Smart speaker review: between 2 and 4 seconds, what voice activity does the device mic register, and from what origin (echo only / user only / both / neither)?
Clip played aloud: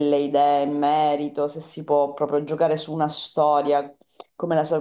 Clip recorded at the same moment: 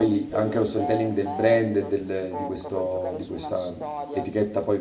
both